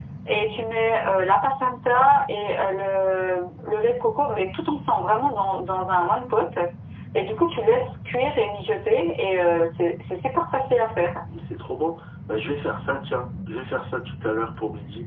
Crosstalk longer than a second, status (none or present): none